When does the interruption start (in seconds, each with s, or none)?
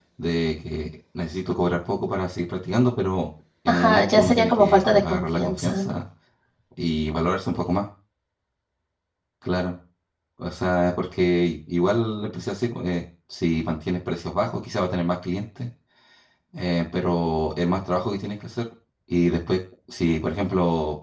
3.7 s